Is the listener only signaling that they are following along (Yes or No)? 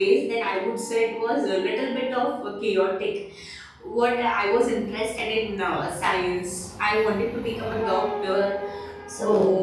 Yes